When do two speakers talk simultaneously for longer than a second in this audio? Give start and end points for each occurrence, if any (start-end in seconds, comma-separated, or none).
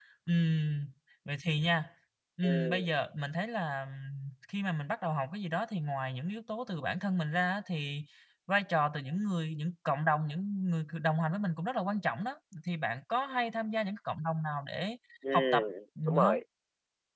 none